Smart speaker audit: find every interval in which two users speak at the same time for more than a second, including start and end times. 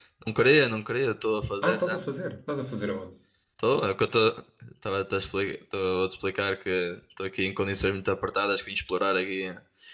none

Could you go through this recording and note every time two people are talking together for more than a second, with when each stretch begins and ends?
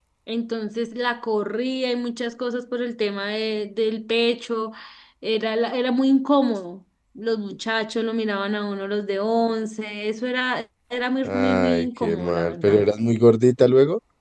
11.2-12.8

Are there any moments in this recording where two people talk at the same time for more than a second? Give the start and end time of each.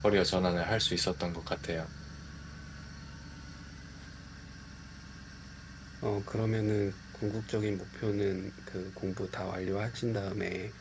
none

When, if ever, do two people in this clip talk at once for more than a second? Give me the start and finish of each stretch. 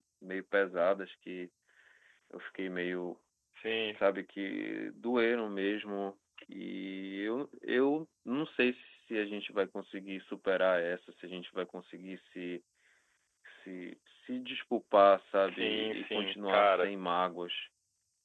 15.4-16.9

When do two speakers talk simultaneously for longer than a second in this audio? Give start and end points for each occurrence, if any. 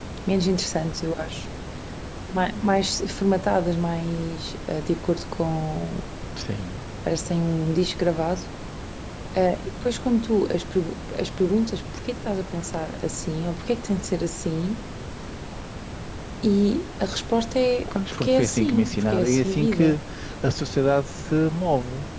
17.9-19.9

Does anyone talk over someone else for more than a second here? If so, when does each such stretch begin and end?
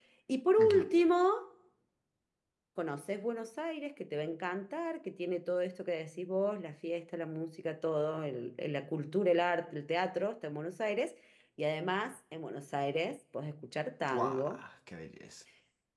none

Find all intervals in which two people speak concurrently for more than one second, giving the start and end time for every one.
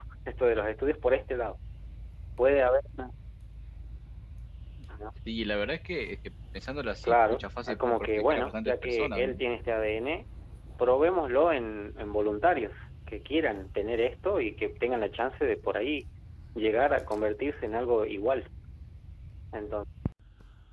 7.0-9.4

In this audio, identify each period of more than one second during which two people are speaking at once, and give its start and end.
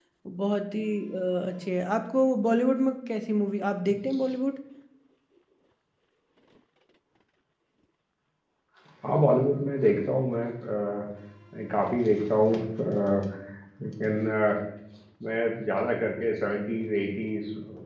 none

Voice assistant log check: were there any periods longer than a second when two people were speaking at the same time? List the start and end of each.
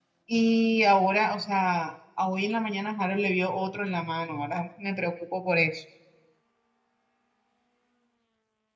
none

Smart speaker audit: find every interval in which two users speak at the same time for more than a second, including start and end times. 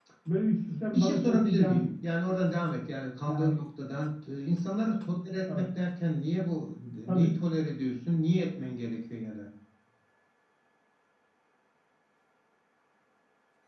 0.7-1.9

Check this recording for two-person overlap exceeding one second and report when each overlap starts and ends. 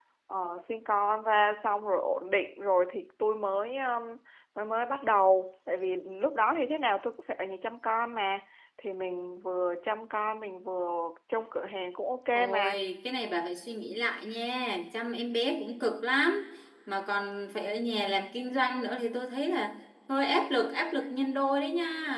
none

